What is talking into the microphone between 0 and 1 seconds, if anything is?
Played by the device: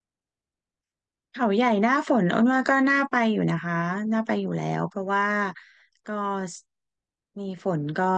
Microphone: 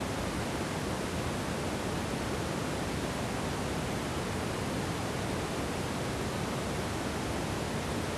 neither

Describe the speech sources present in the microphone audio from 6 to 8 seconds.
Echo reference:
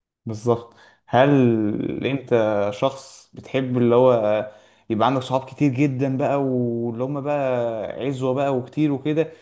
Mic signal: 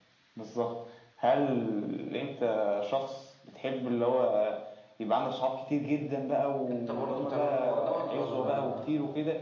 both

